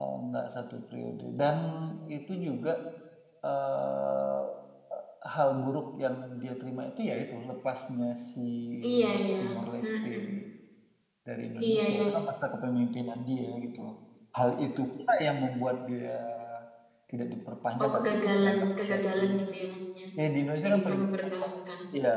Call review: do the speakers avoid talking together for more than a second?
No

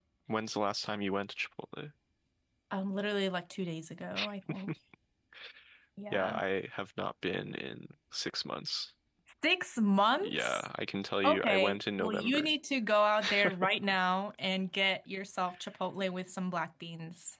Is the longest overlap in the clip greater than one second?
Yes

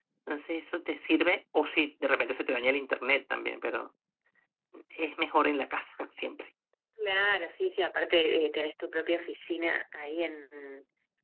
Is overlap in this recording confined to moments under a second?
Yes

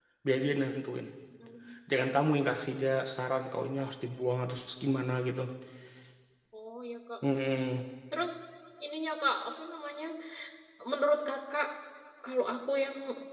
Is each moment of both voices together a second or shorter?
Yes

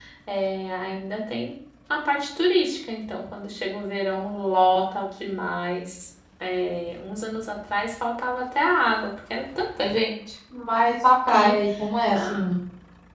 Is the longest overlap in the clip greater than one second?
No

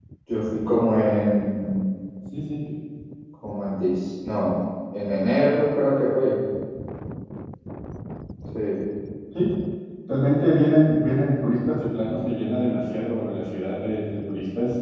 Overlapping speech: No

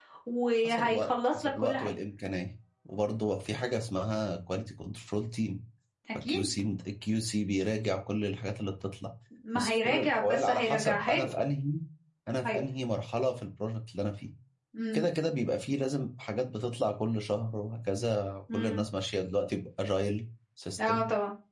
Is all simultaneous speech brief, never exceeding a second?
No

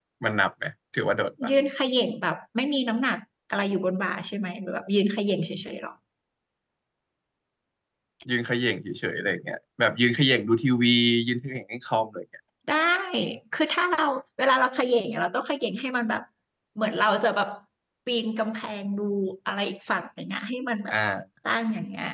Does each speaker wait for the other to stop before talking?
Yes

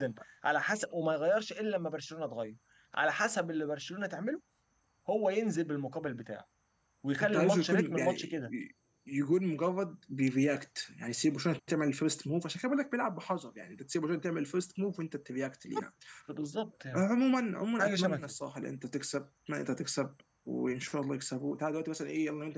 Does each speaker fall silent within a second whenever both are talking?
No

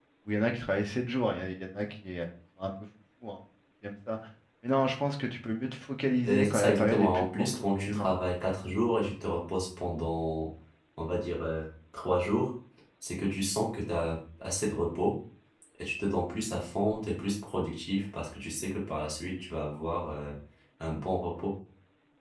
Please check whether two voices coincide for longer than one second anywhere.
Yes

